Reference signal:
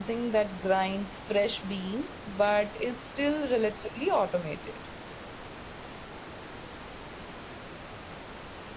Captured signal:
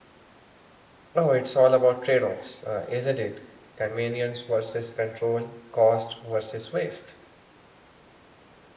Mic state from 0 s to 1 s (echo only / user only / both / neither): neither